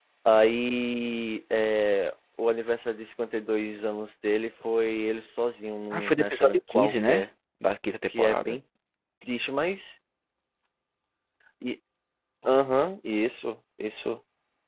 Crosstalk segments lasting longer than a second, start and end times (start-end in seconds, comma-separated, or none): 5.9-7.2